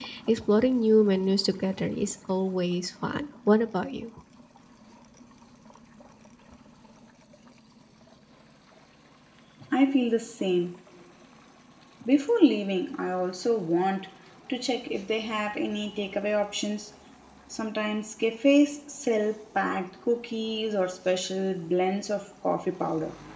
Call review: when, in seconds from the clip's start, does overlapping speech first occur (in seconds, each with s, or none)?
none